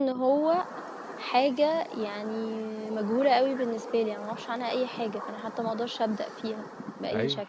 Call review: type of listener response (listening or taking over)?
taking over